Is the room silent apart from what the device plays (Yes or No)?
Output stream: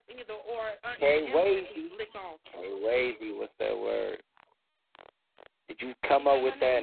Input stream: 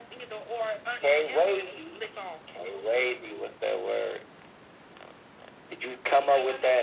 Yes